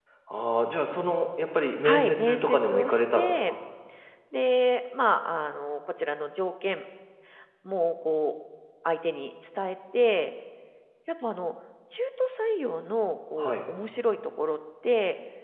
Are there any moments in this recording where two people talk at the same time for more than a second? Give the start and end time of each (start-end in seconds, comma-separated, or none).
1.8-3.5